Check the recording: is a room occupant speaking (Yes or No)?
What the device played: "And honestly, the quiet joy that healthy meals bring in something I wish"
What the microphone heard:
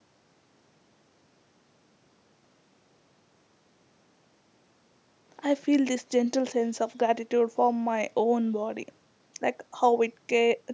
Yes